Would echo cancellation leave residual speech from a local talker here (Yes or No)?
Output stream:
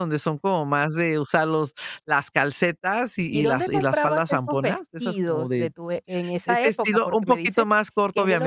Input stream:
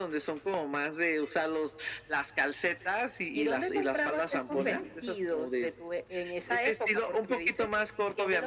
Yes